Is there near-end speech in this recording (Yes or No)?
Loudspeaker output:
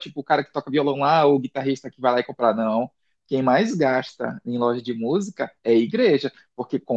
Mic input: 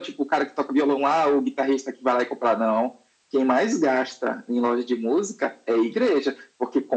No